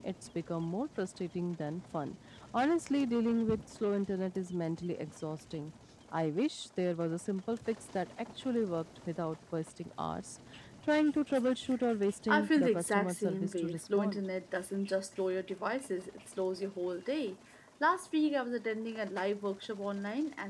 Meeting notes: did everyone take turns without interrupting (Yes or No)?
No